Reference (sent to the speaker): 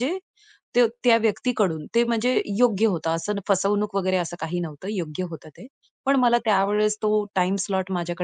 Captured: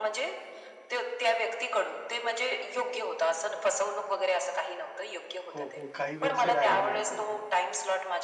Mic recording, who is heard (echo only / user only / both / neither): both